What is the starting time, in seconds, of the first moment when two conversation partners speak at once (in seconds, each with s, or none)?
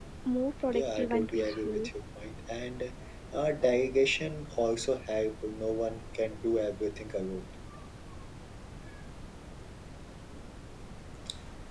0.7 s